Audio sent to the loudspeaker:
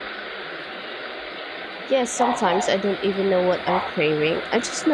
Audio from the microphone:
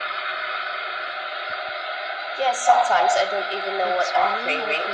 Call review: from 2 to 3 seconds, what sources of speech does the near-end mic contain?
echo only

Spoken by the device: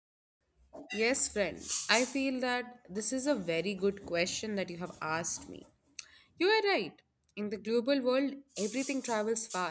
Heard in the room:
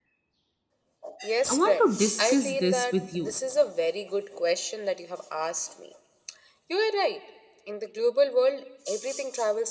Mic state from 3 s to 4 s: both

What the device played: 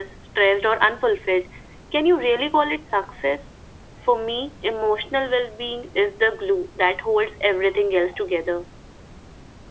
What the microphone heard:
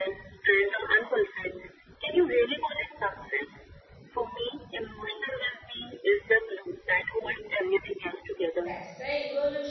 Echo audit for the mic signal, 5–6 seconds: echo only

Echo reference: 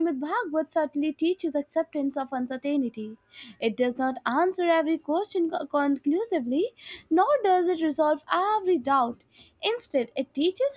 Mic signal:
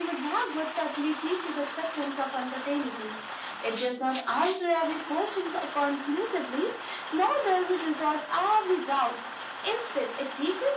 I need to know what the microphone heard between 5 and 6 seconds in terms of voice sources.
echo only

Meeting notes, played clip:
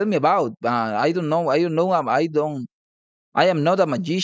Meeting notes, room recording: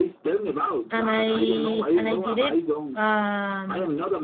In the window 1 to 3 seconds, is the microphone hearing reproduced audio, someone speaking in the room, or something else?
both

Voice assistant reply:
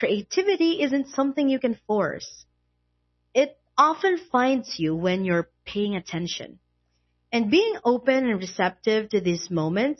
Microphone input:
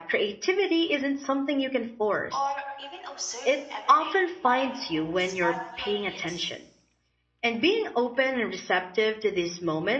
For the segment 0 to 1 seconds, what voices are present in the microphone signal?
echo only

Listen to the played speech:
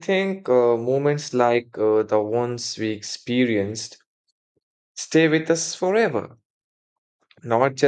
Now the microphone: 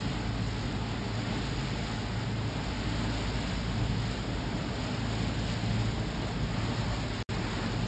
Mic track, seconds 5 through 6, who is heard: neither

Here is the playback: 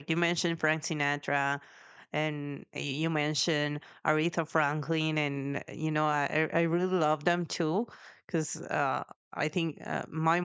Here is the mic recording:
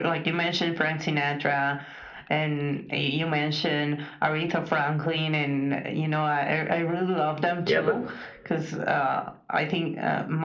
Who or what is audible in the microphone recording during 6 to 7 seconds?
echo only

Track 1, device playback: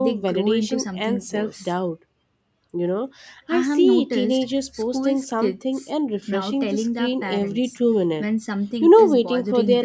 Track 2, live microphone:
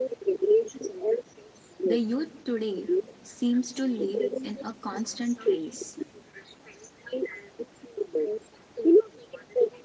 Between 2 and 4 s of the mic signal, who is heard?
both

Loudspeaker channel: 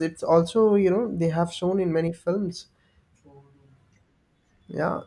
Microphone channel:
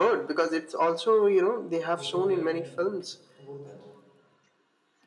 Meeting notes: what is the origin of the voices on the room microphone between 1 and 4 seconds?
both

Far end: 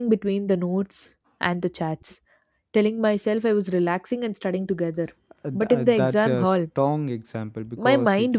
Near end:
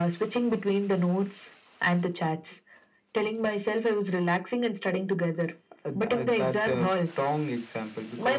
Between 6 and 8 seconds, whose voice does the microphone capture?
echo only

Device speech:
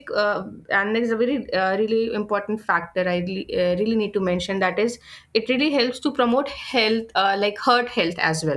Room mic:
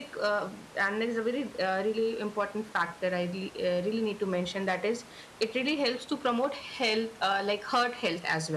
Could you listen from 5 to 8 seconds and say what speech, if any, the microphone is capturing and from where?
echo only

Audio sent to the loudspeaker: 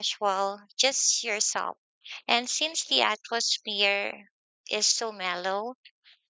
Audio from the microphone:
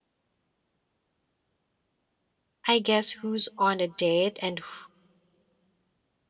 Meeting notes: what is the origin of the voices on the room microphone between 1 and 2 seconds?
neither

